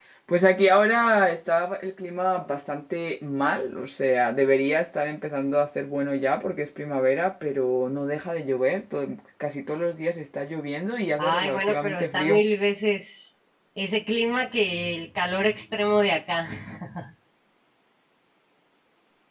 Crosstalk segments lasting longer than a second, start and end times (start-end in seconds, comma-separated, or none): 11.2-12.4